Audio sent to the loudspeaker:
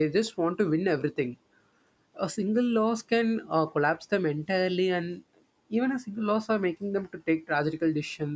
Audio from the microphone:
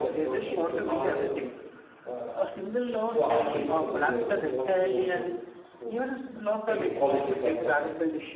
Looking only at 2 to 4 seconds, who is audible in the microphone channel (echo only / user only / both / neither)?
both